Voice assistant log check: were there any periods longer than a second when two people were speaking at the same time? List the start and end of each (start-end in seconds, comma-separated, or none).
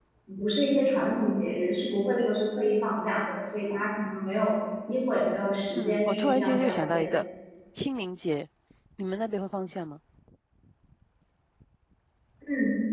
5.8-7.1